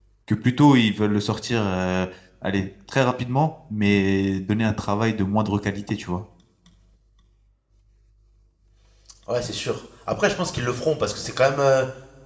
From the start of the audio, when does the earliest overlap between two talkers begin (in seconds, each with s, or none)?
none